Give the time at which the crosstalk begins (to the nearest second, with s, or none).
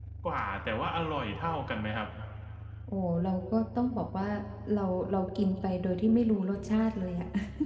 none